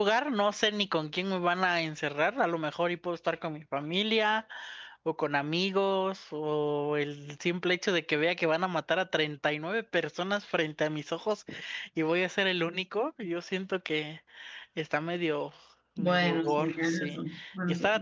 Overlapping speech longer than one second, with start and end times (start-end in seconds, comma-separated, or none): 16.0-17.2